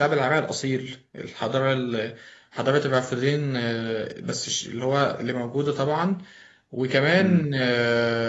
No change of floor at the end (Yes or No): Yes